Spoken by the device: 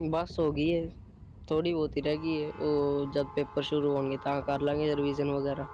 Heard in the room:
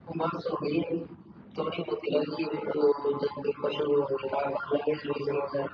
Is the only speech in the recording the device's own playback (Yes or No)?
Yes